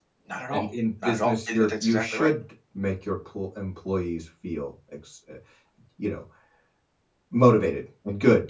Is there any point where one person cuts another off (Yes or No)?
Yes